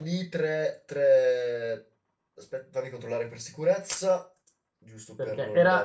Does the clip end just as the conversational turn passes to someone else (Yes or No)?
Yes